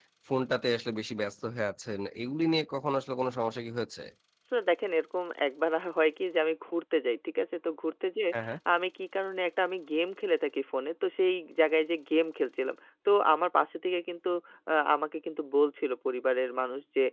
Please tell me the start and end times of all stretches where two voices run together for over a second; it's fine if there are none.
none

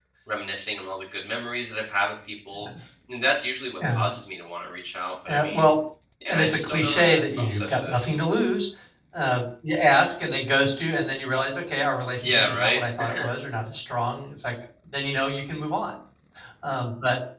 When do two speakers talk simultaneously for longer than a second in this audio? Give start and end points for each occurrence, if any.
6.3-8.2

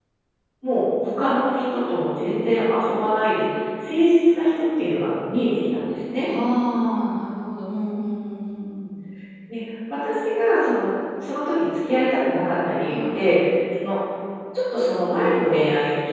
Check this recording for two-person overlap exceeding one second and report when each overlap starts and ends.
none

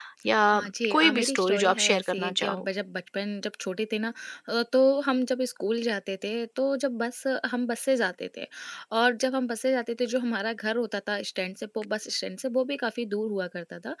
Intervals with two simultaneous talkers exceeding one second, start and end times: 0.5-2.6

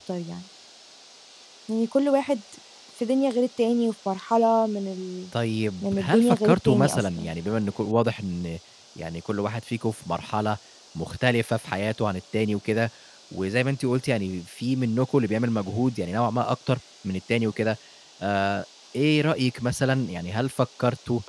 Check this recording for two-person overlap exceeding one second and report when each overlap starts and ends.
5.8-7.3

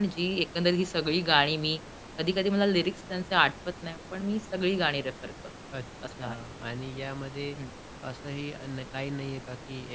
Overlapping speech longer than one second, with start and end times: none

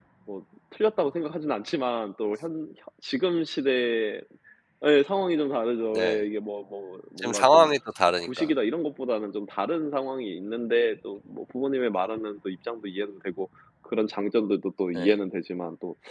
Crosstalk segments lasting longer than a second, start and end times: none

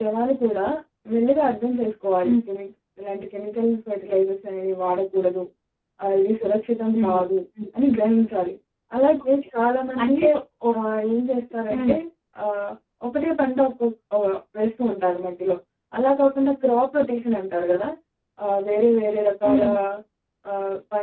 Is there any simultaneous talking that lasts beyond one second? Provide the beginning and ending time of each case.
none

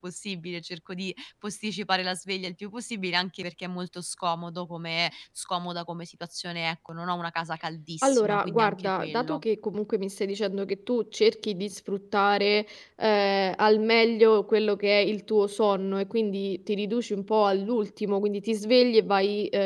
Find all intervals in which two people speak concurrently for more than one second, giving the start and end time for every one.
8.0-9.4

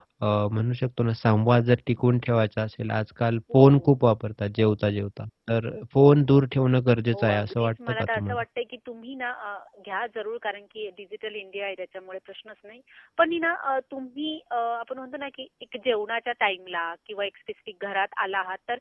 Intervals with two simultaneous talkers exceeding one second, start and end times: 7.1-8.4

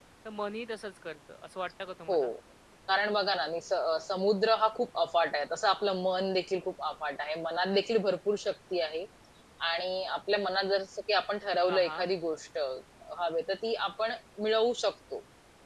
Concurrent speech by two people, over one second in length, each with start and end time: none

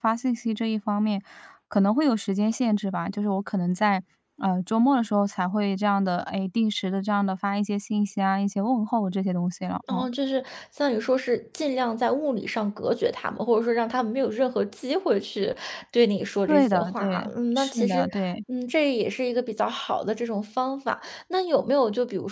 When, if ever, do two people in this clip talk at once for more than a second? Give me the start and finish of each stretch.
16.5-18.0

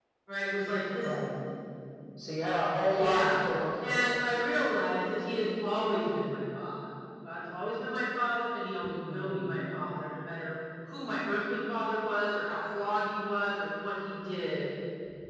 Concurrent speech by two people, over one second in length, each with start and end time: none

